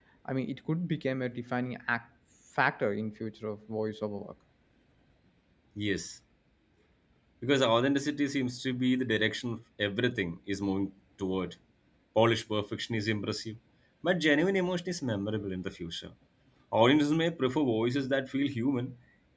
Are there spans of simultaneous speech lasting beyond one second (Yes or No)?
No